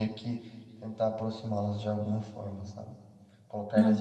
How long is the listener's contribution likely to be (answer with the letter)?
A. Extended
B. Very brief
B